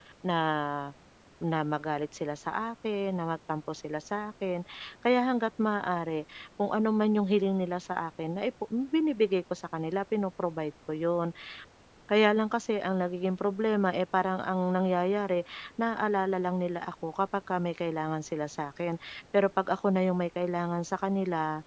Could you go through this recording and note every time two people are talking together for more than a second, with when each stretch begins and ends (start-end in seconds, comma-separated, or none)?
none